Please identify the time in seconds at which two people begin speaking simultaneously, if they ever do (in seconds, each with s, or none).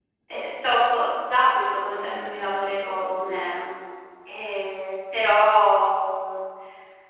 2.0 s